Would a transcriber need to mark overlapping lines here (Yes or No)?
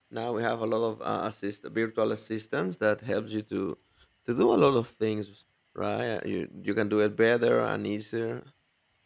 No